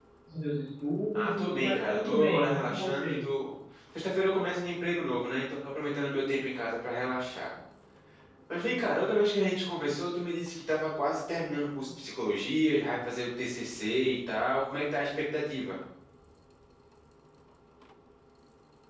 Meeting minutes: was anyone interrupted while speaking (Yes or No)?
Yes